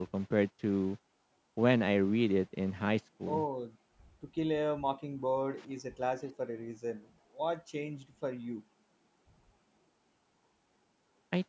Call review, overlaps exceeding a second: none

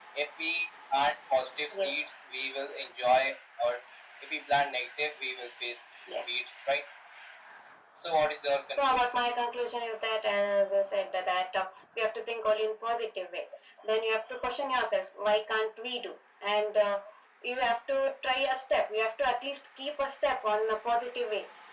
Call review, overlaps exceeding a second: none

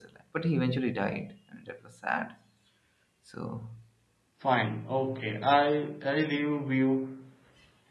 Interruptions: none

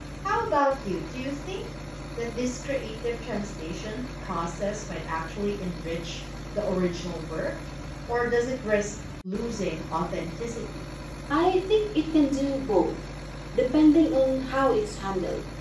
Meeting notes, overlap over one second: none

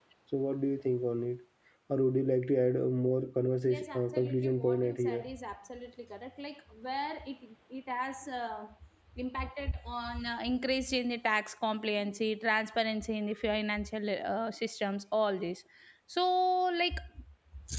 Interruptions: present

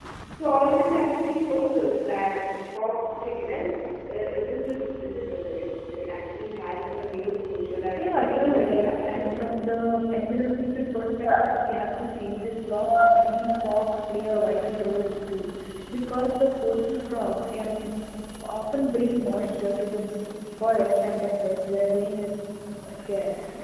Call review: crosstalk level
present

